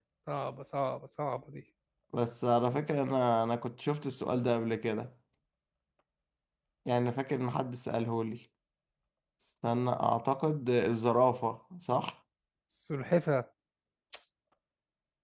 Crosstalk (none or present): none